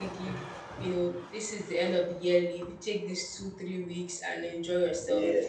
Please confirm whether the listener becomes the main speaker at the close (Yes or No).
No